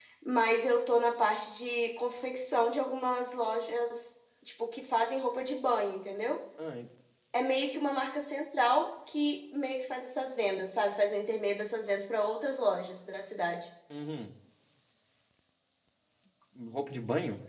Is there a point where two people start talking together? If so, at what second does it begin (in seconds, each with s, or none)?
none